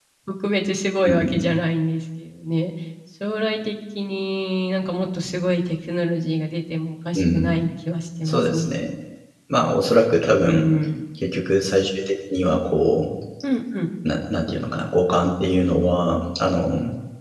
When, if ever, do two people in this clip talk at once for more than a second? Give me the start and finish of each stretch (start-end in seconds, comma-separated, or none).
none